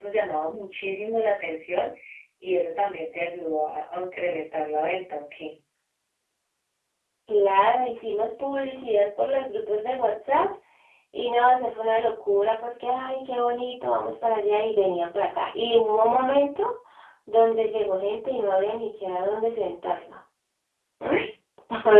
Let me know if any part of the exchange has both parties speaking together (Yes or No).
No